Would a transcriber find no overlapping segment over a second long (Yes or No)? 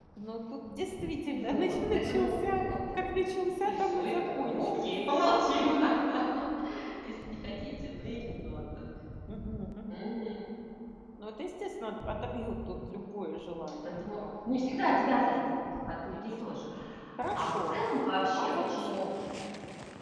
No